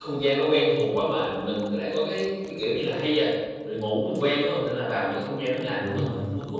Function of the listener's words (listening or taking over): listening